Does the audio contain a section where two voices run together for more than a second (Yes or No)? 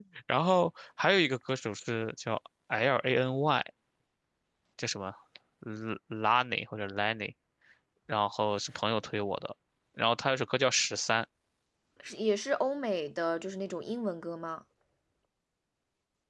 No